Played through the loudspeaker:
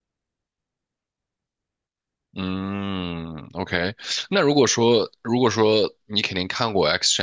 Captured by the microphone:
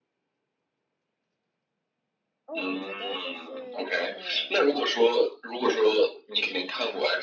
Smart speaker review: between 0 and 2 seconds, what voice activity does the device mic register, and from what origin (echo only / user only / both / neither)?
neither